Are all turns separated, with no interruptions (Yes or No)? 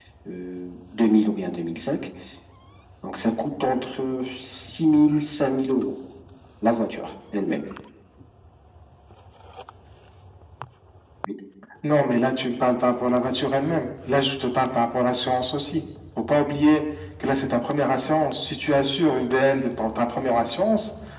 Yes